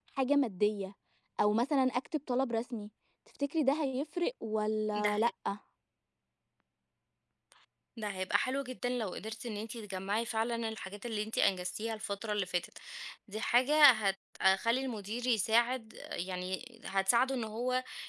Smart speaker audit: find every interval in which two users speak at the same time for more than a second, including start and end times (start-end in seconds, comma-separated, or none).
none